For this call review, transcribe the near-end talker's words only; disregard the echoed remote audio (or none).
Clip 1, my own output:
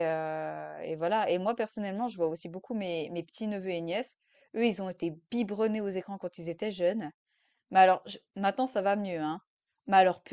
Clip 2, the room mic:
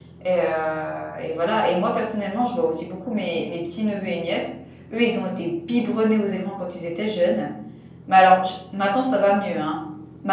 none